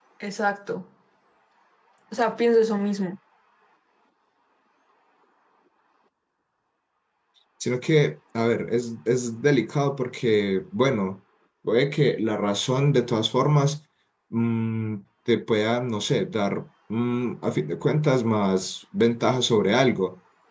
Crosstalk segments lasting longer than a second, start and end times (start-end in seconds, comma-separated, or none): none